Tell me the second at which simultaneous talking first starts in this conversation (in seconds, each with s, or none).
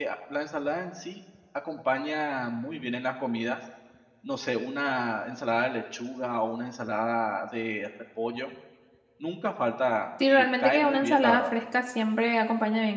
10.2 s